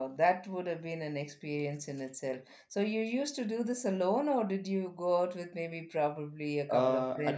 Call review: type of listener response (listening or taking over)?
taking over